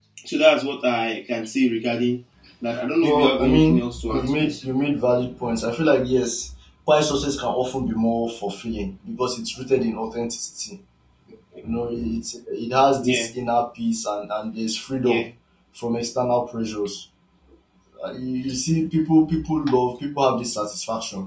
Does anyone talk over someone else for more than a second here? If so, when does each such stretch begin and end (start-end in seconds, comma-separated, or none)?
3.0-4.6